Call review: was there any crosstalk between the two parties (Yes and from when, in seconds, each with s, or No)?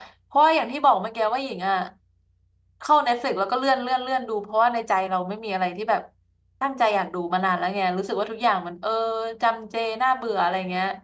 No